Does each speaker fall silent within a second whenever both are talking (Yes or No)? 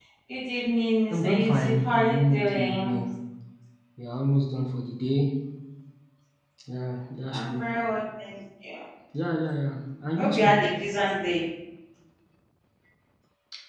No